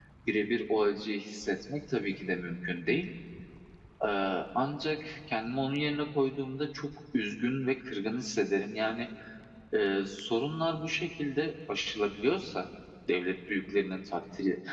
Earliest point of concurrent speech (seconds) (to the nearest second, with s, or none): none